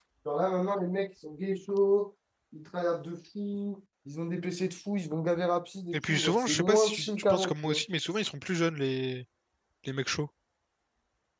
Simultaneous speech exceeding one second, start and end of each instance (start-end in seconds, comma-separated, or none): 5.9-7.8